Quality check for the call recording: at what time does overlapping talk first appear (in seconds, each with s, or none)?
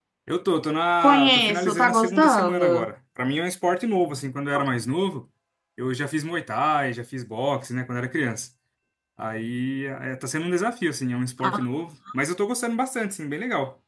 1.0 s